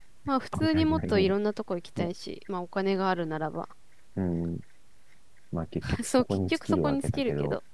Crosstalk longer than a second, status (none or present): present